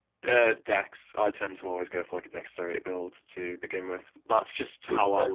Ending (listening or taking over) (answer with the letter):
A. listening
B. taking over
A